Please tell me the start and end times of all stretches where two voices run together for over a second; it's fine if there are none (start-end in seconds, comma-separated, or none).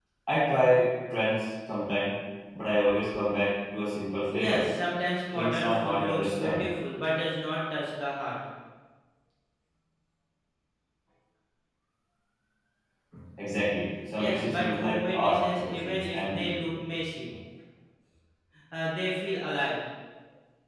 5.3-6.6, 14.2-16.6